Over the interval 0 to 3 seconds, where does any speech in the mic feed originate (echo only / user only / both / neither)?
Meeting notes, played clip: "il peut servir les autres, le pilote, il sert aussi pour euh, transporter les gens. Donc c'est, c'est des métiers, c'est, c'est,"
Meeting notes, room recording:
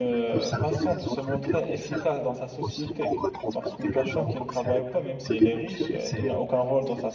both